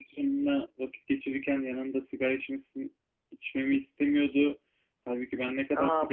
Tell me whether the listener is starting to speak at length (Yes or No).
Yes